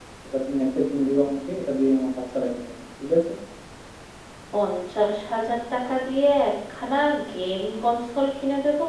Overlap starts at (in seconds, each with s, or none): none